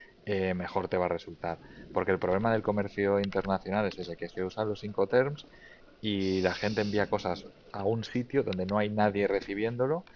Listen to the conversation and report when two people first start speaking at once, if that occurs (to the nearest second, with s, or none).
none